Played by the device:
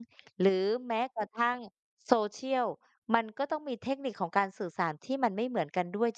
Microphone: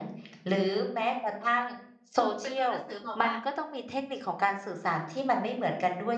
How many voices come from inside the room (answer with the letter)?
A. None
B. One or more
B